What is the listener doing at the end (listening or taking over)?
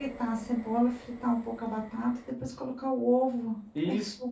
taking over